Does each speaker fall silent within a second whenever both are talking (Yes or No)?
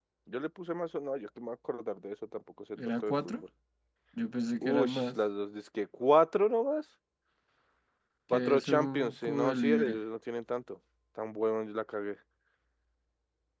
No